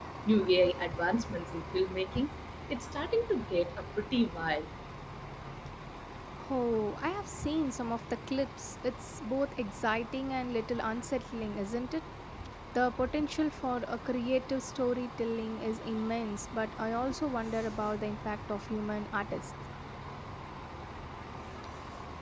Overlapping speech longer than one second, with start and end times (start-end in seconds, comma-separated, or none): none